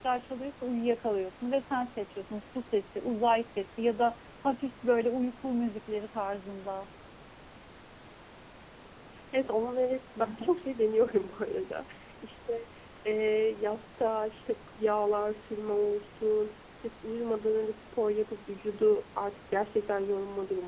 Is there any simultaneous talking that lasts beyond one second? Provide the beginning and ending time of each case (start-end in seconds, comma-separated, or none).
none